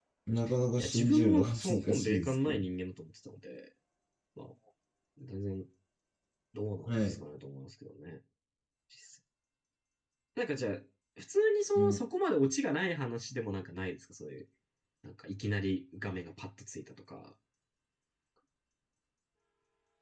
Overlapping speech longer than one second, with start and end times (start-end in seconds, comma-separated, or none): 0.8-2.6